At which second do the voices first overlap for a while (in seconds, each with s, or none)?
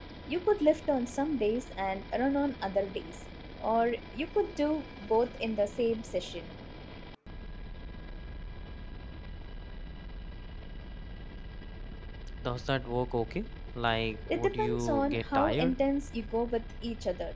14.3 s